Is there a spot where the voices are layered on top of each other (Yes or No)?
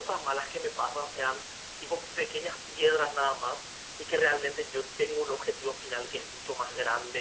No